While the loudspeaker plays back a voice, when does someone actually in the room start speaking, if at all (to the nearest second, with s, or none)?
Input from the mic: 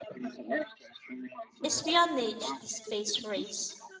2 s